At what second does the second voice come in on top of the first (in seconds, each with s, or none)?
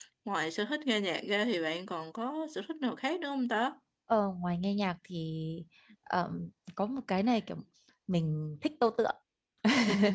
none